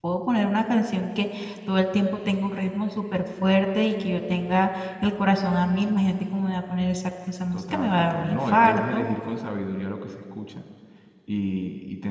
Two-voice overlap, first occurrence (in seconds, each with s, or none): 7.5 s